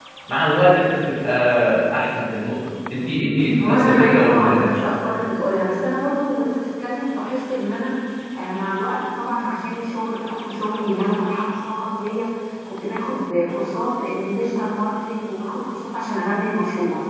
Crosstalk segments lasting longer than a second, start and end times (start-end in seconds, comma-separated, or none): 3.6-4.8